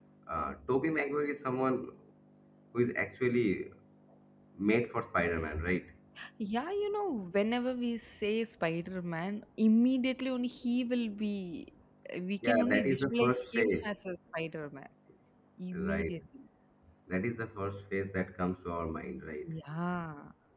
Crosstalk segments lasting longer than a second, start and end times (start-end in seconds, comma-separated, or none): 12.4-14.0